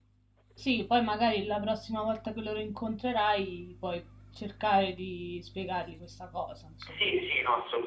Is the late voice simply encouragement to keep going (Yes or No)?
No